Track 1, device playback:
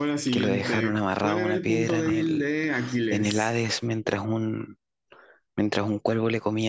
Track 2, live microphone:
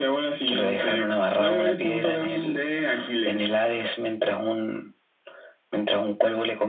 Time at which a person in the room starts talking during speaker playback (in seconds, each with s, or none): none